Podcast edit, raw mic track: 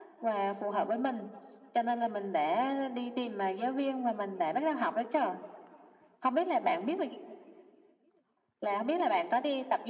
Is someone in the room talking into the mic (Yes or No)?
No